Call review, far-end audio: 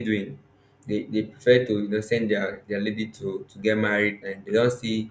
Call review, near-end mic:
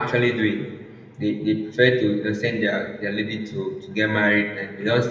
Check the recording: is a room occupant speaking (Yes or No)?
No